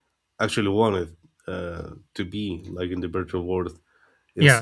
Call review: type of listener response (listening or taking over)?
taking over